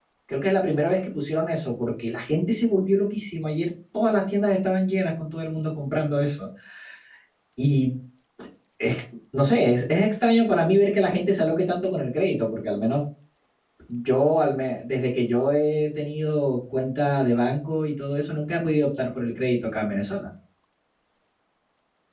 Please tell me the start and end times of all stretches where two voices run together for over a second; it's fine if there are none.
none

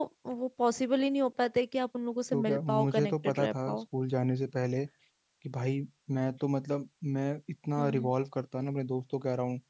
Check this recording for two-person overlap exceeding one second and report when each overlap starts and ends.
2.3-3.8

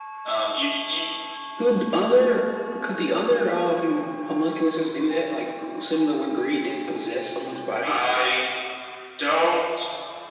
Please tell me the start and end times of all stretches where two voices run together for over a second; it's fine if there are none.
none

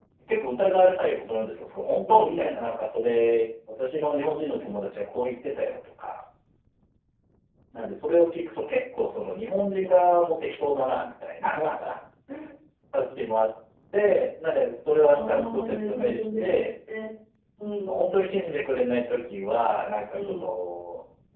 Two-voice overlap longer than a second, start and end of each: 15.0-16.7

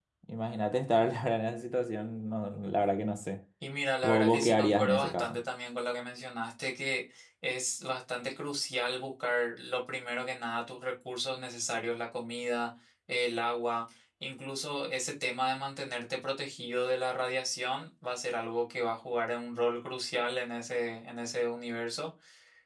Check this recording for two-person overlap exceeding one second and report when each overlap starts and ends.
4.0-5.4

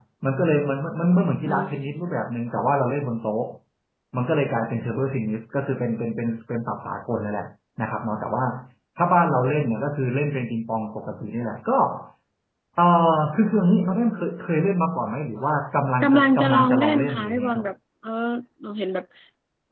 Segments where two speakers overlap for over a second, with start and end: 16.0-17.7

